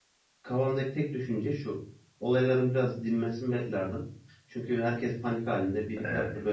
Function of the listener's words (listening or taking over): listening